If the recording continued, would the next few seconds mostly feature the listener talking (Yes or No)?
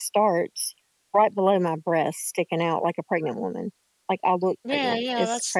Yes